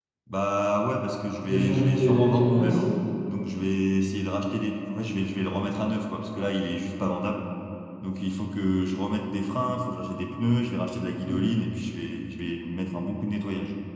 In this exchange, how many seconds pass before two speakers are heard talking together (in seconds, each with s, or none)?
1.5 s